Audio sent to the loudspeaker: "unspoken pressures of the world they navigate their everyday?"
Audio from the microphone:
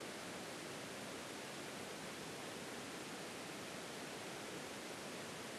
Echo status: none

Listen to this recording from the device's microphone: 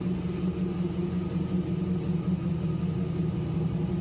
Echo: none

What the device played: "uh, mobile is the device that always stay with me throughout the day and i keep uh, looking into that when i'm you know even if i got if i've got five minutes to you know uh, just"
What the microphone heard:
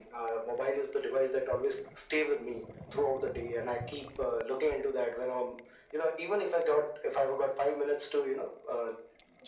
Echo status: present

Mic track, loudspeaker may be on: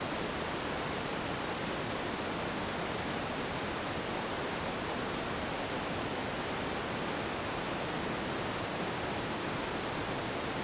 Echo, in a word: none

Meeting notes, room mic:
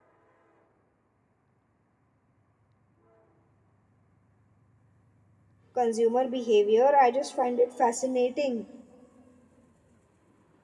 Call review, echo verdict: none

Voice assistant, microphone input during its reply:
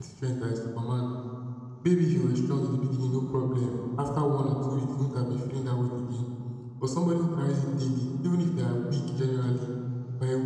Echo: none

